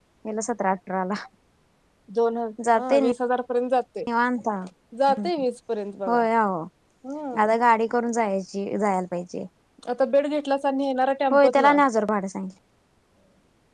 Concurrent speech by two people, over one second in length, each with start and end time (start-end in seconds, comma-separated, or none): none